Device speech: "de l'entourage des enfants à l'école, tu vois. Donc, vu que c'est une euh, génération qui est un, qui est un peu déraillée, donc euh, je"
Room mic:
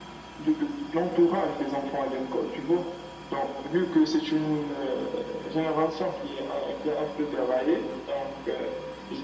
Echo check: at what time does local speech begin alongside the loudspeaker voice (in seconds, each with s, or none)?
none